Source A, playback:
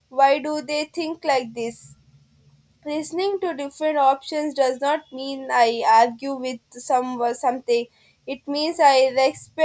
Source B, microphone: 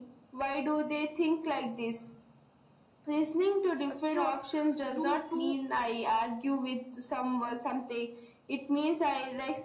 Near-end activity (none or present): present